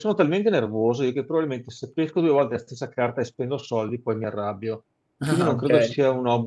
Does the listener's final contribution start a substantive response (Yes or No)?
No